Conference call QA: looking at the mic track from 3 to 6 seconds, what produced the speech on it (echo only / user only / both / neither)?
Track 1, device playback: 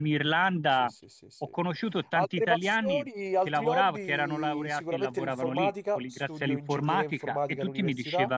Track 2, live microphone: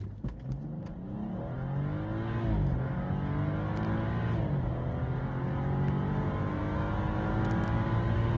neither